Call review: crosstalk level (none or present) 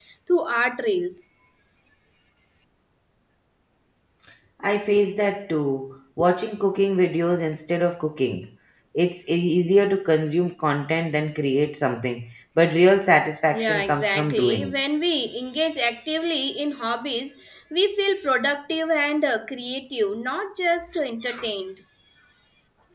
present